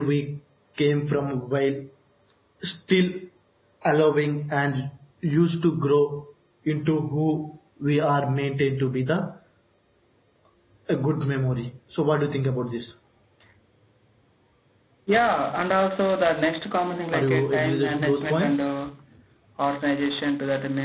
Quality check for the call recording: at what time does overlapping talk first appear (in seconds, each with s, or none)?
17.1 s